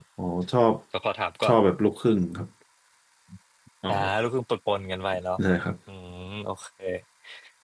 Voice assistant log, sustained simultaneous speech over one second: none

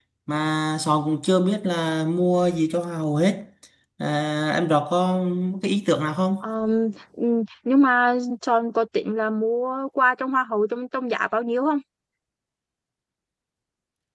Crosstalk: none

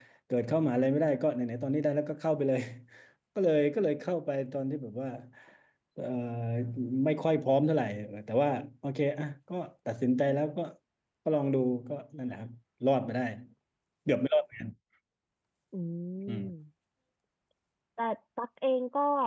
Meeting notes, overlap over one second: none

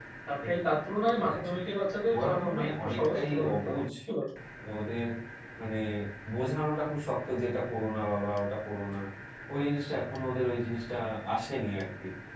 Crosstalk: present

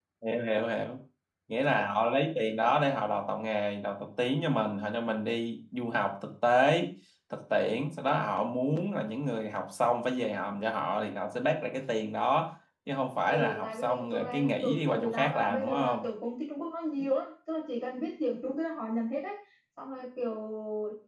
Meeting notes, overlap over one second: present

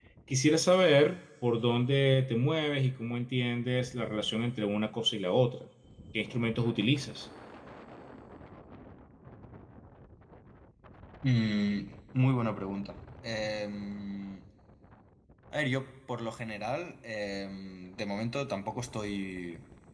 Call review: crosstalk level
none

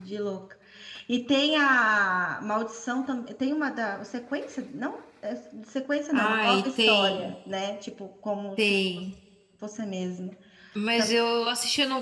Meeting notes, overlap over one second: present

